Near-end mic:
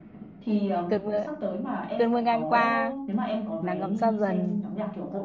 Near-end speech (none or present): present